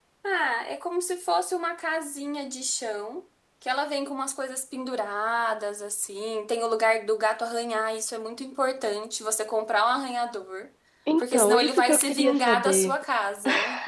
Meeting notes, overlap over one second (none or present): present